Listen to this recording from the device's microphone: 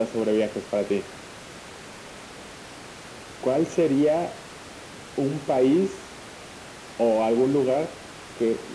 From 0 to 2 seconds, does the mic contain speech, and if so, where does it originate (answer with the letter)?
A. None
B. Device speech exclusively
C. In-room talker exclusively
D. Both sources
B